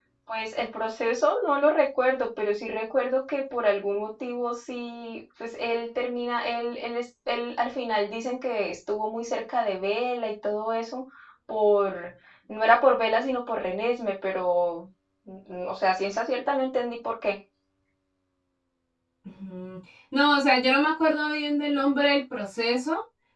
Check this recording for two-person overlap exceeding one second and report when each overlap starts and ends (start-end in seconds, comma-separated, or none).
none